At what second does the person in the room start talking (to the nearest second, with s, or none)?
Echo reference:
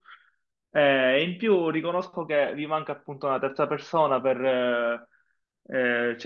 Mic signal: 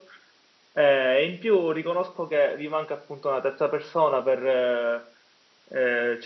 none